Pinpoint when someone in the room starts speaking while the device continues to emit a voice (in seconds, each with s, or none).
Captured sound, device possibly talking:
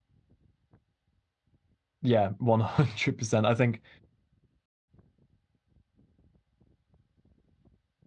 2.0 s